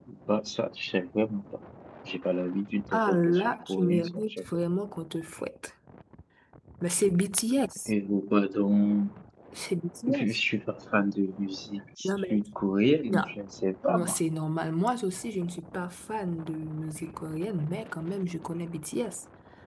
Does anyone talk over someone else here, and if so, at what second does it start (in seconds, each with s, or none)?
2.9 s